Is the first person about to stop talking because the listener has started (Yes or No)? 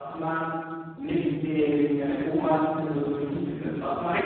Yes